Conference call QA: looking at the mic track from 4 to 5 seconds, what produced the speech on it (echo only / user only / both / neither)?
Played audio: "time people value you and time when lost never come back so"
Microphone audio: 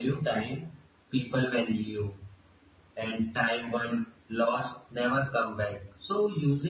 echo only